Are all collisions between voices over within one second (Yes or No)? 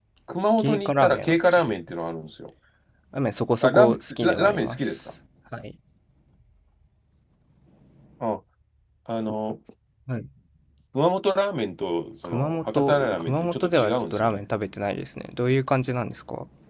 No